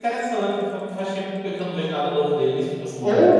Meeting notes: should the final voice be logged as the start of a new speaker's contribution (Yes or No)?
Yes